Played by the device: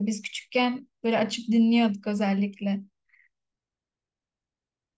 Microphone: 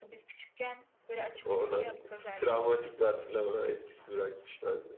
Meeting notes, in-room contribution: present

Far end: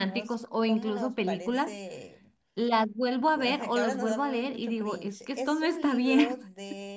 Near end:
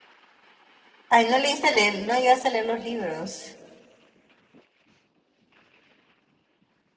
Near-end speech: present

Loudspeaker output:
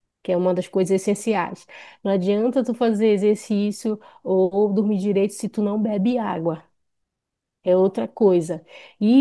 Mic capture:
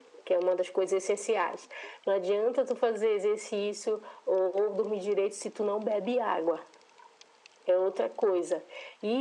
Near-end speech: none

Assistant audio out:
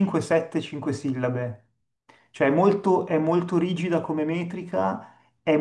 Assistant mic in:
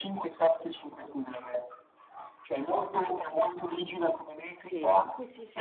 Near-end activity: present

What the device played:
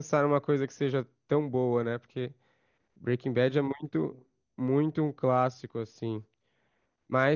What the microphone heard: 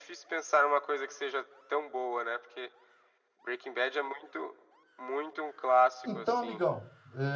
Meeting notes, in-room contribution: present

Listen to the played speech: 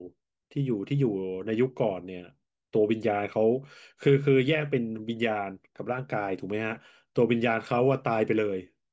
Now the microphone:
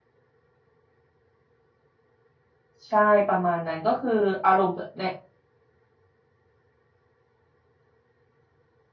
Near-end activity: present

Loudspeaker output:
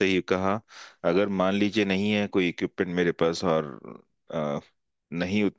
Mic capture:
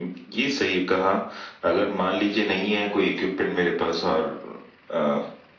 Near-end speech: none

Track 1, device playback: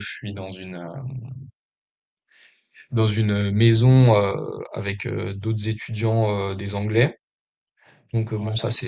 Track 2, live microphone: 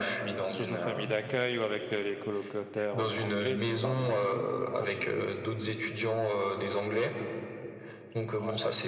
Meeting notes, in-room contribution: present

